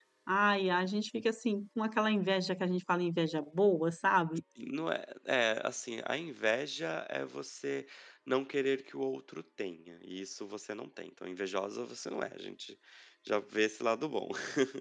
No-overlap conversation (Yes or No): Yes